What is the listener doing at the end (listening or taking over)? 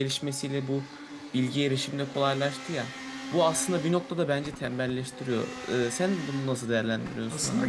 taking over